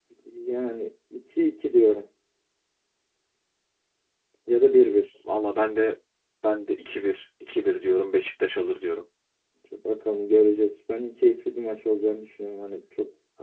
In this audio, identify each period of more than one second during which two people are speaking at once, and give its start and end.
none

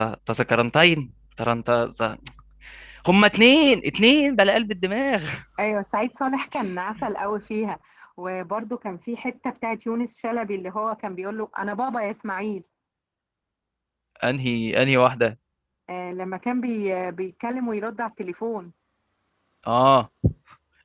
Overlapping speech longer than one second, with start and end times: none

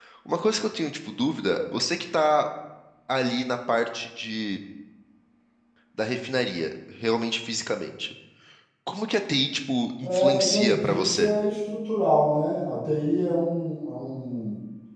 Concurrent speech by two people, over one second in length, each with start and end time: 10.0-11.3

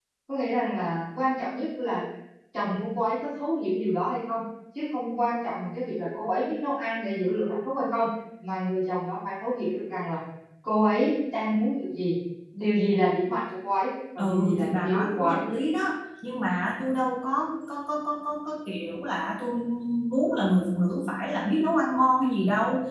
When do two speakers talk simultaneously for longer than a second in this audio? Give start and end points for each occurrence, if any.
14.2-15.4

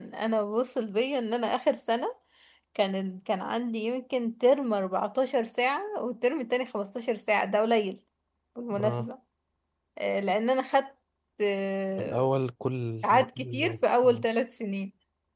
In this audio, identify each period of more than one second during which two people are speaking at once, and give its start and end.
13.0-14.2

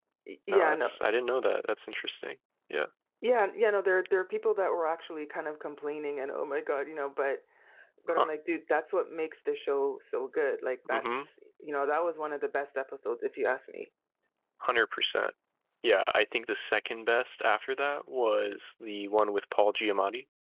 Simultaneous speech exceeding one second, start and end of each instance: none

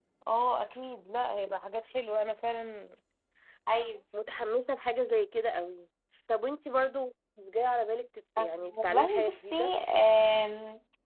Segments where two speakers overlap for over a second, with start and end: 8.4-9.7

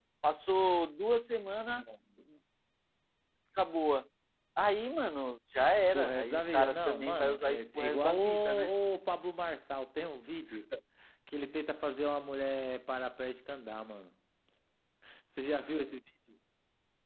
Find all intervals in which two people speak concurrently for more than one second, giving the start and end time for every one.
5.9-8.7

